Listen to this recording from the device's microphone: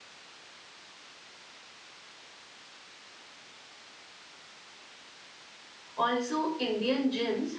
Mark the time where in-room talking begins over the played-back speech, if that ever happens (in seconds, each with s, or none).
6.0 s